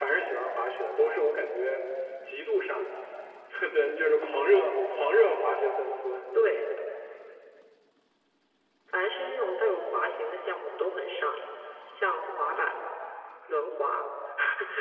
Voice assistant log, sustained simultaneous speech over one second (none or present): none